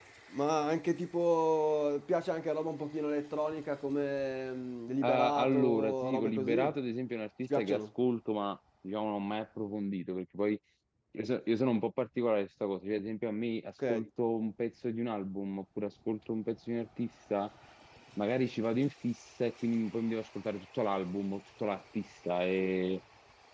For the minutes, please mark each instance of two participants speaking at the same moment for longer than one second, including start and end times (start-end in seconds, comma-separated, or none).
5.0-6.6